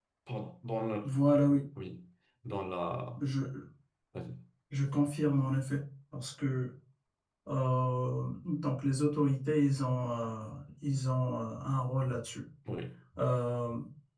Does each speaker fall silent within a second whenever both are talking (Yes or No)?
Yes